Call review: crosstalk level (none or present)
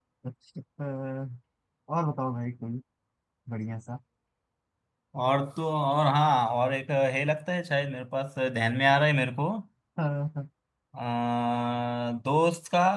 none